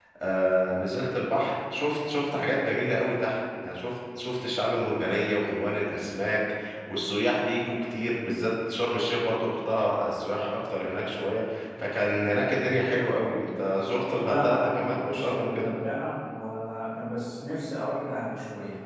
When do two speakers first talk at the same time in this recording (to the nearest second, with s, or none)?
14 s